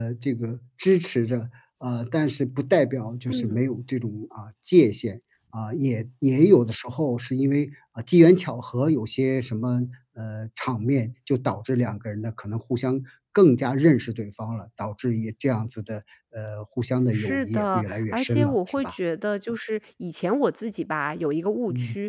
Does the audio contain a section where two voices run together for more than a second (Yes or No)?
Yes